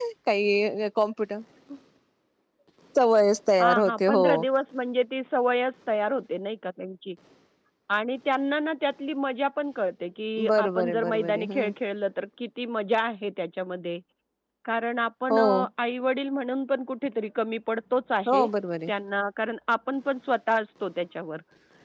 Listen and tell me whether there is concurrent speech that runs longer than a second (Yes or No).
Yes